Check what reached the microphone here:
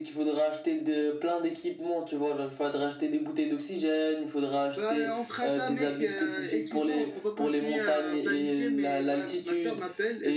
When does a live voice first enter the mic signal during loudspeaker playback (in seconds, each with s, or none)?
4.7 s